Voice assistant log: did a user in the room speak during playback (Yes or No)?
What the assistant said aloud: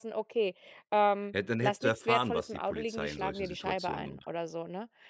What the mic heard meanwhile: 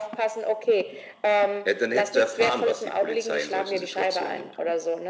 No